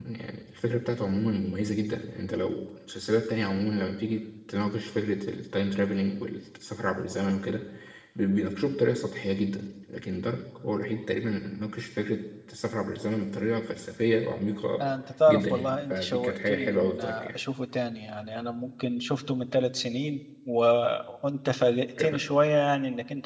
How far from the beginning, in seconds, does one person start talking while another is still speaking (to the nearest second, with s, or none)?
15 s